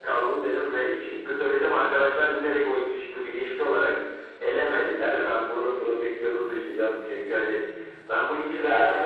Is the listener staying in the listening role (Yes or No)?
Yes